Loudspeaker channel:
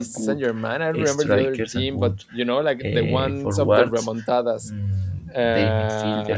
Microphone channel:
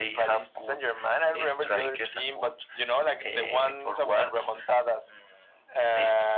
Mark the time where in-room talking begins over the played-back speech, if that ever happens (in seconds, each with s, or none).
none